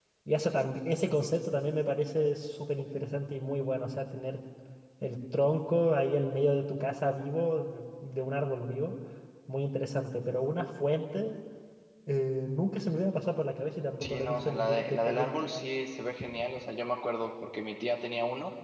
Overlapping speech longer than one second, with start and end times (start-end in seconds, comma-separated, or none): 14.0-15.3